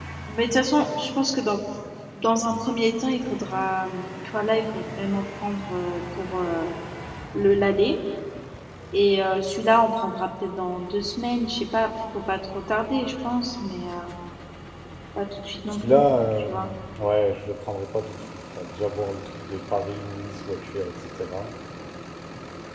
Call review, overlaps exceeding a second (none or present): none